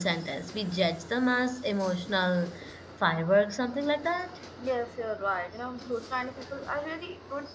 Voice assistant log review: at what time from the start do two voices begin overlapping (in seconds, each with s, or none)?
none